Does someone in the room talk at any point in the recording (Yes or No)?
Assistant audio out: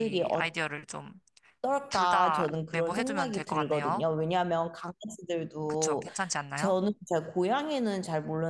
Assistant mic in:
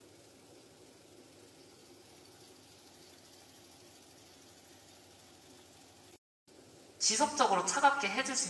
Yes